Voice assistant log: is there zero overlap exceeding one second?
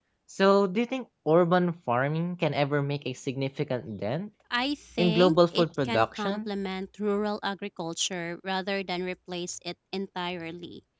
No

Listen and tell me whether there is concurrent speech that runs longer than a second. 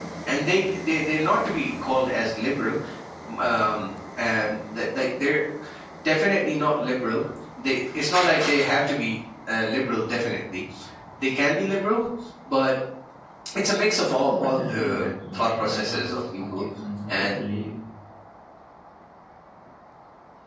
Yes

